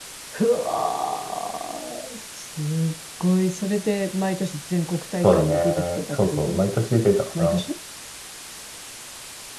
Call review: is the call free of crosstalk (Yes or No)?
No